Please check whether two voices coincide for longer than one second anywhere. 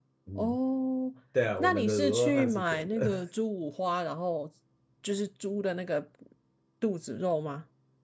Yes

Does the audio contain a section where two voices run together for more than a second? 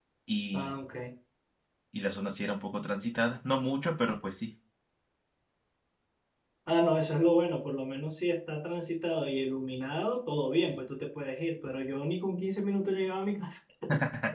No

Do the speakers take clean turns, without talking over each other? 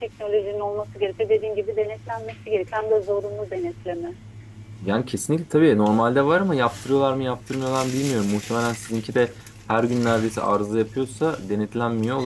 Yes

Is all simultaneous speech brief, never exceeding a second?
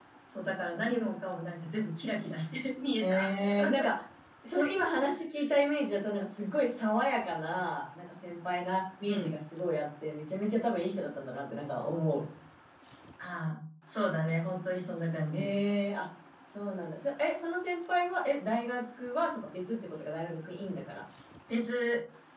Yes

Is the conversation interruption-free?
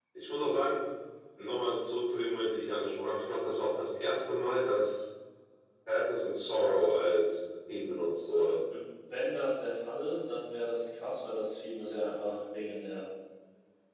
Yes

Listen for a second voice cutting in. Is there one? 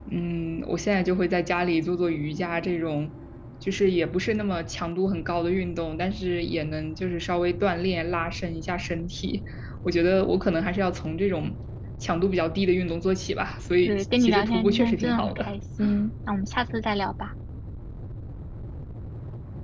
Yes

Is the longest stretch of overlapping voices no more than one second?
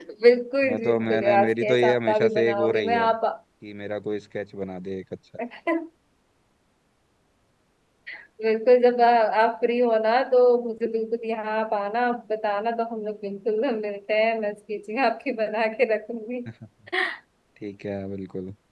No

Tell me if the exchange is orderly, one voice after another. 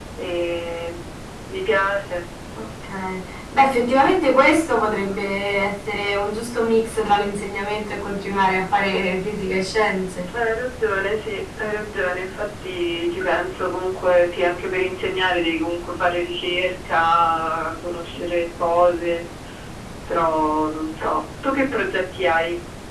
Yes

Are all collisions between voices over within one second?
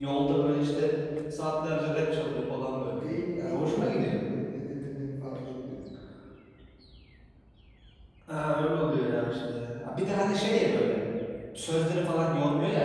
No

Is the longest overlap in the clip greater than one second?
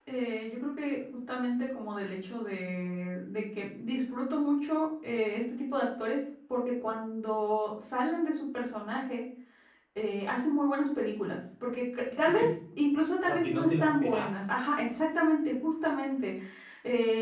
Yes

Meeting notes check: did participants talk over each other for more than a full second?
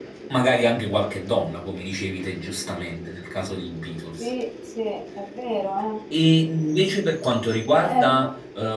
No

